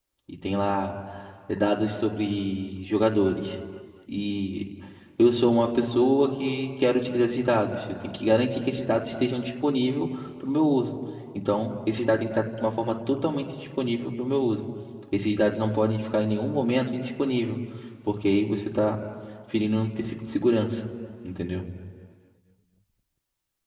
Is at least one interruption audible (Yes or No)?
No